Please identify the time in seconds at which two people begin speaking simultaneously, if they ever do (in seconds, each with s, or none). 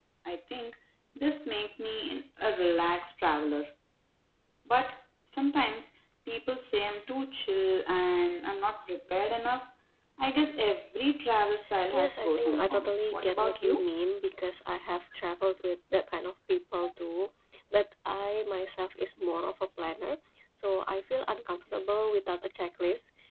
11.9 s